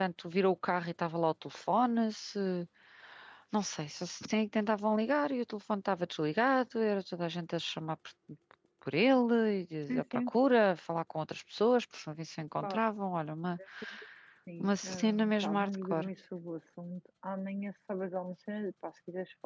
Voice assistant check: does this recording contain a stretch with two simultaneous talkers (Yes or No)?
Yes